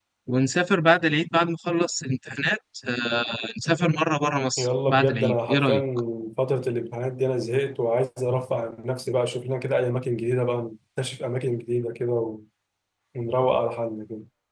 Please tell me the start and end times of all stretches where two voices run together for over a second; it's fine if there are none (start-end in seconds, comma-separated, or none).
4.6-5.8